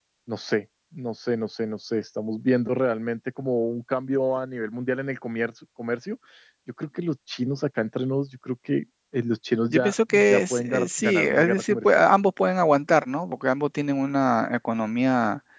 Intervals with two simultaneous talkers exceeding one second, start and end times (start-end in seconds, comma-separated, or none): 9.7-12.0